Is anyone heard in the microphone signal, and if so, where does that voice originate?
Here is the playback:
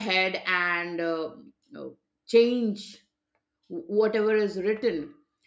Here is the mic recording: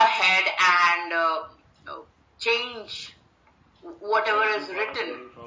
both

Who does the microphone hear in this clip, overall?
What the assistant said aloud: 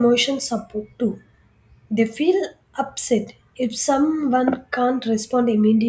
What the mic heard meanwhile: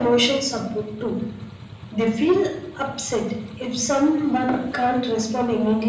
echo only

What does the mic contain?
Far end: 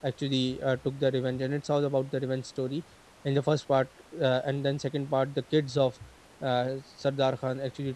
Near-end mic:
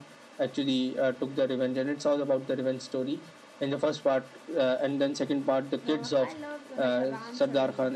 both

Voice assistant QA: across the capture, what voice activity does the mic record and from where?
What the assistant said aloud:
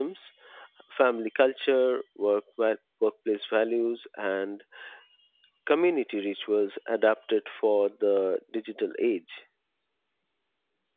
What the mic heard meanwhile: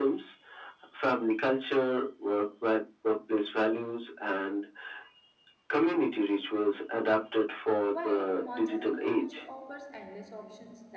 both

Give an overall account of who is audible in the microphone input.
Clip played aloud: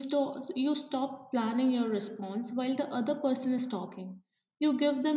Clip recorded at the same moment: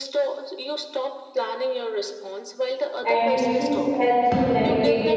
both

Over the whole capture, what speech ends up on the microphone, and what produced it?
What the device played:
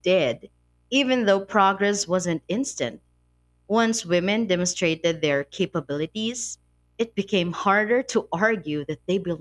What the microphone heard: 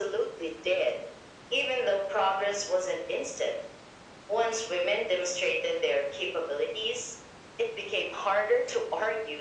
echo only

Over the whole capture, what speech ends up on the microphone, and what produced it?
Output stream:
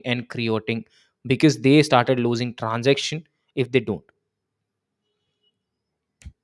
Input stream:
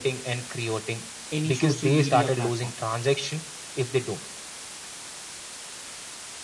both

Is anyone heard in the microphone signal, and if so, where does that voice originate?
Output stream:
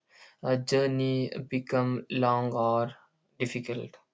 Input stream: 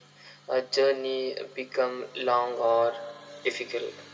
echo only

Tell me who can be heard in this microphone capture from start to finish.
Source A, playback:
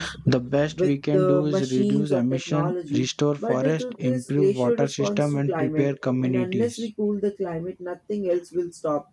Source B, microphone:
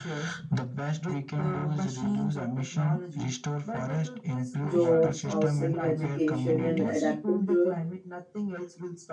both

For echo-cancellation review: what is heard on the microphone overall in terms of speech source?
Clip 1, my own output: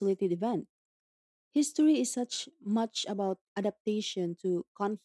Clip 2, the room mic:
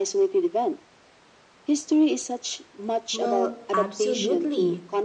both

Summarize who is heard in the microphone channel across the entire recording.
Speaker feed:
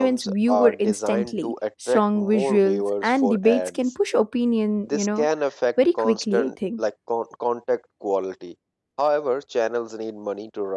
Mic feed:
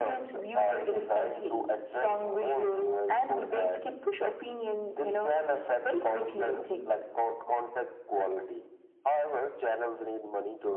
echo only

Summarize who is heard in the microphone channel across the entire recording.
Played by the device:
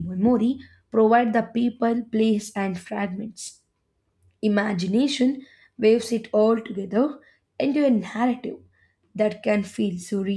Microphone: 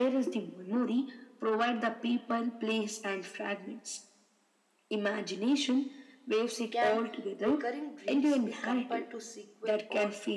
both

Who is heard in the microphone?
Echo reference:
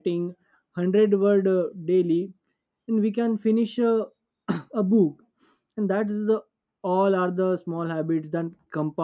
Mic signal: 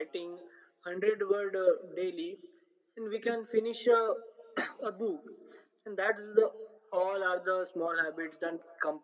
echo only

